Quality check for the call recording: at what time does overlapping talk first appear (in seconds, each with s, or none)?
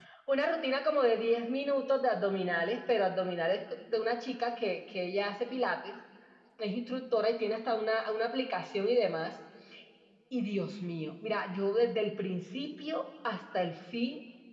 none